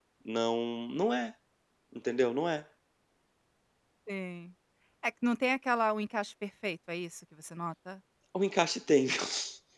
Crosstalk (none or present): none